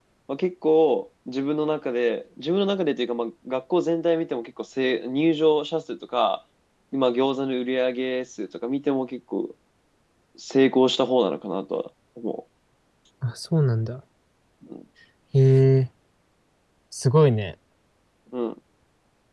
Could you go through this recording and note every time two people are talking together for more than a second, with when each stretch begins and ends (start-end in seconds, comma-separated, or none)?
none